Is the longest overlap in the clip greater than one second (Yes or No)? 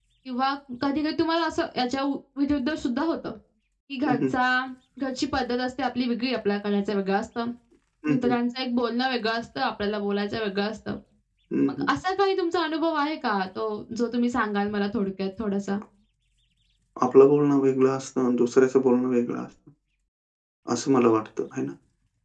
No